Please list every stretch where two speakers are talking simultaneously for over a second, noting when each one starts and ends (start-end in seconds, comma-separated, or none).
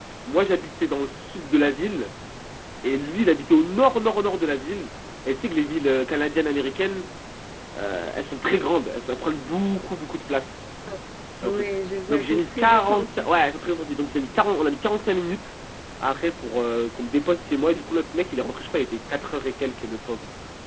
12.1-13.3